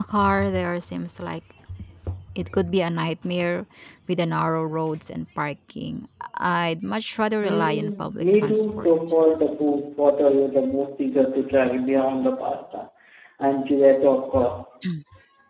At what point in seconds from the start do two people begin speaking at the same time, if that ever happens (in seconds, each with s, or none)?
7.4 s